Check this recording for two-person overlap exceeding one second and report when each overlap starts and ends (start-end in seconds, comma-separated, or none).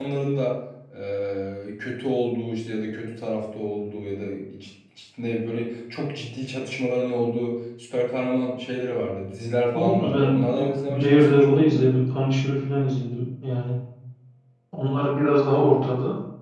9.7-11.9